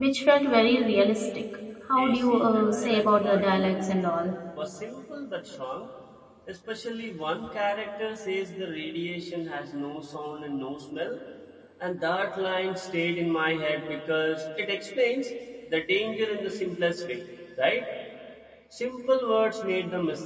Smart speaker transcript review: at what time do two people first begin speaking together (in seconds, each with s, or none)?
2.0 s